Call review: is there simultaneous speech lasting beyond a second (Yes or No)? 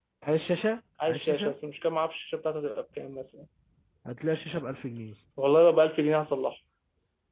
No